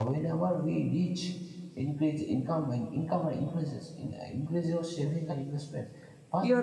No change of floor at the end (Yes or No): Yes